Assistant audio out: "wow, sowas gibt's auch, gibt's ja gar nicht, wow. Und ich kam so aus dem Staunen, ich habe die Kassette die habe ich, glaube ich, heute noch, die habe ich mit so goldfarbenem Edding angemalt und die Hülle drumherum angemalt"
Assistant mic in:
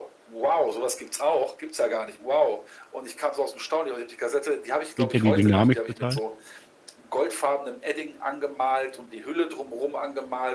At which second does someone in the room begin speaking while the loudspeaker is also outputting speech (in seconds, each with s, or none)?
5.0 s